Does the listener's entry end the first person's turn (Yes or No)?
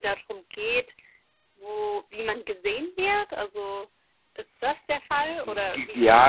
Yes